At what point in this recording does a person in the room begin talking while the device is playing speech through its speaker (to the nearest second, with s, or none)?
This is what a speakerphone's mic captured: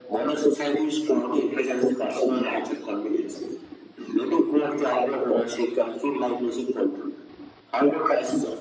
none